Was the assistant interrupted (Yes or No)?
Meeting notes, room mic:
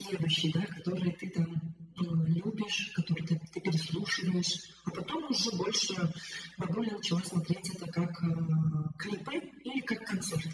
No